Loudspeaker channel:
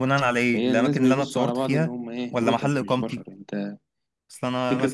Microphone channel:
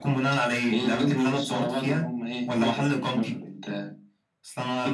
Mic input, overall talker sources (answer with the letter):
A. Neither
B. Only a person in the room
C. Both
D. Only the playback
D